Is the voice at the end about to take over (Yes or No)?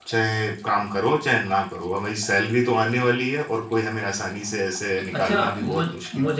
Yes